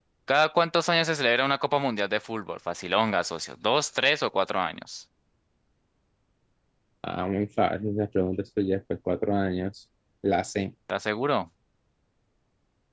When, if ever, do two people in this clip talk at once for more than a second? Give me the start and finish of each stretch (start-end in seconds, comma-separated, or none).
none